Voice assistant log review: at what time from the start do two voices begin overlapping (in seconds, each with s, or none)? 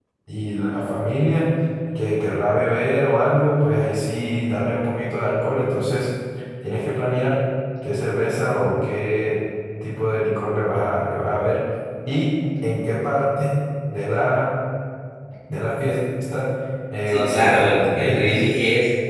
17.1 s